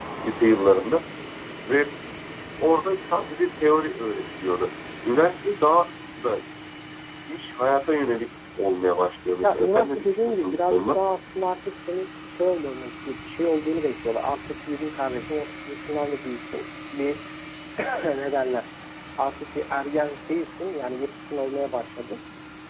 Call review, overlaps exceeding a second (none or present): present